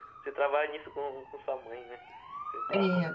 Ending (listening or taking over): taking over